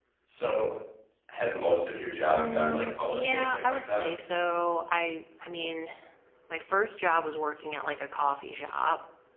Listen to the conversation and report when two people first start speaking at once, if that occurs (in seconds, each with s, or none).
2.3 s